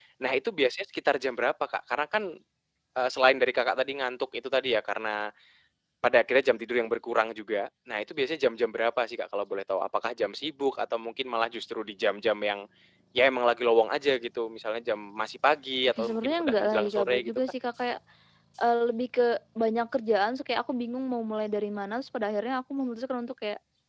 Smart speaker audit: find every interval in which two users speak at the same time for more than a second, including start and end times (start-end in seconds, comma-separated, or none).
16.0-17.4